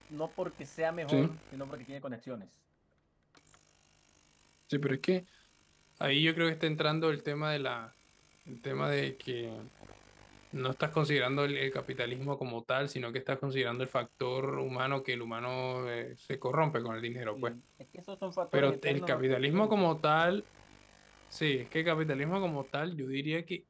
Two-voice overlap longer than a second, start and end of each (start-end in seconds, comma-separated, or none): 18.5-19.9